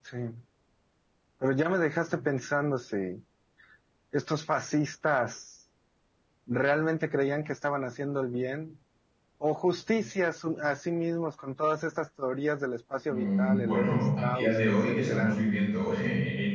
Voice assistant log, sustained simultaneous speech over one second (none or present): present